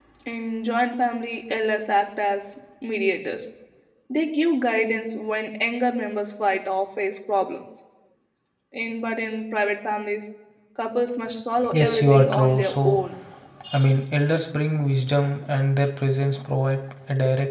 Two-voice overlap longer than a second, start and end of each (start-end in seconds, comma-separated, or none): 11.7-13.0